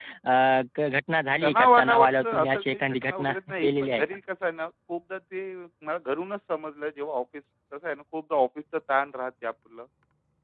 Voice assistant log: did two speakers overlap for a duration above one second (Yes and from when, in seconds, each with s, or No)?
Yes, from 1.4 s